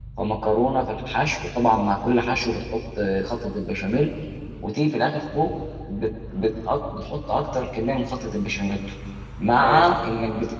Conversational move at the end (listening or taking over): listening